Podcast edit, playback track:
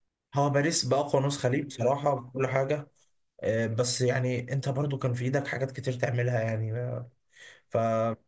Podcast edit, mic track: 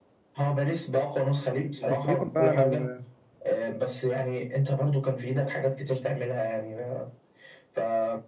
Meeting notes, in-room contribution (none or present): present